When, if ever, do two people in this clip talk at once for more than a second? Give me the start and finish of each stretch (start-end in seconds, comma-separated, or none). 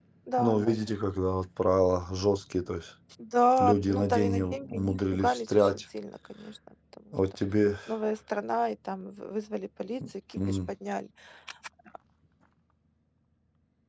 3.6-5.8